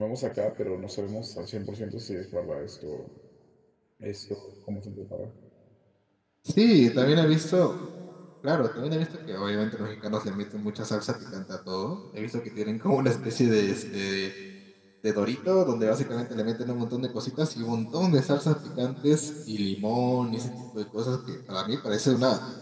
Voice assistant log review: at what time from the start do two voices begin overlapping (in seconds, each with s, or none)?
none